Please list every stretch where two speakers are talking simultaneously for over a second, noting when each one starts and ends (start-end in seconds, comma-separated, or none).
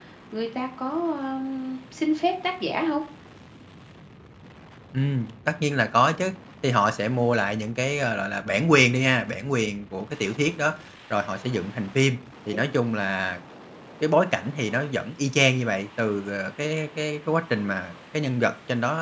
none